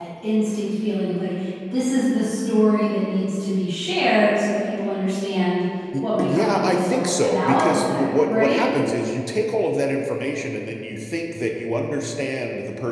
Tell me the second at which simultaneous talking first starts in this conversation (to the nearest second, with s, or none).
6 s